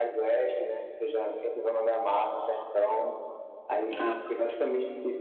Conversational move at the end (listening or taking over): listening